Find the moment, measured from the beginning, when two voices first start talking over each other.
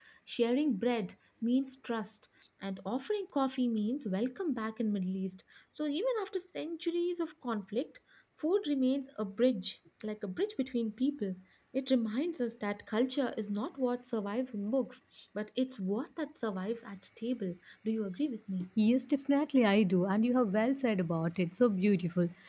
none

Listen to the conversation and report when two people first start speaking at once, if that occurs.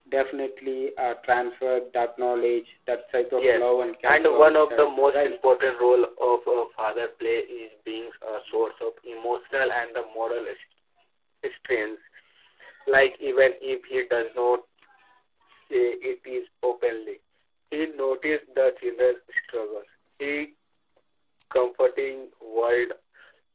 3.4 s

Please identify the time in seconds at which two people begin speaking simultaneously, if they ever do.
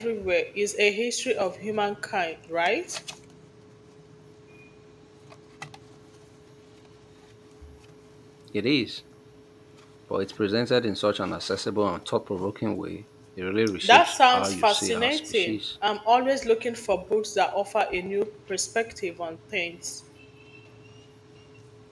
13.8 s

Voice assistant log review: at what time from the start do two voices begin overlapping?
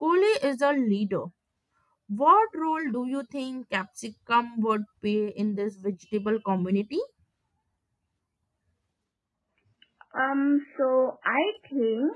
none

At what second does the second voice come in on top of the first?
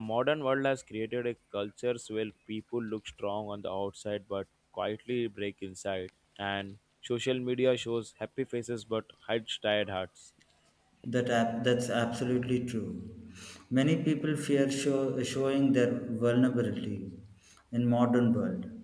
none

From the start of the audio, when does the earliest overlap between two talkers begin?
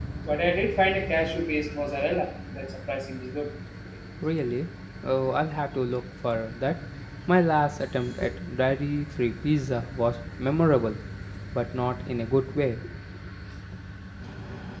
none

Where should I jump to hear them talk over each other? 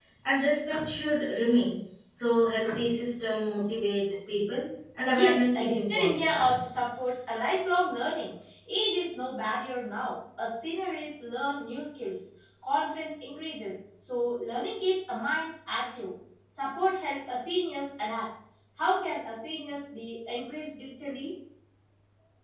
5.1 s

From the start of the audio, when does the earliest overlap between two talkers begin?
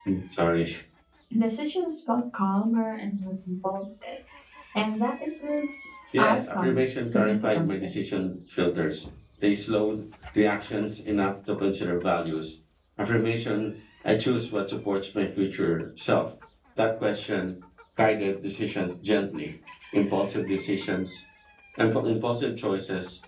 6.1 s

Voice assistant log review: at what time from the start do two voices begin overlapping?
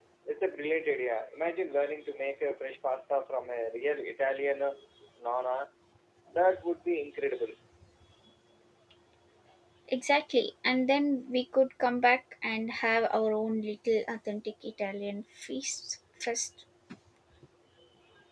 none

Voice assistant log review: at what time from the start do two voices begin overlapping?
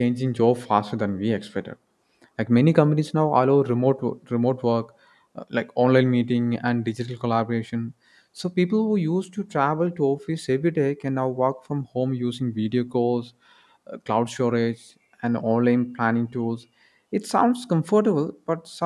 none

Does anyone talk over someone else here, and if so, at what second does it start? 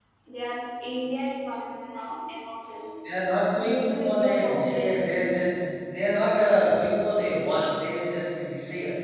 3.6 s

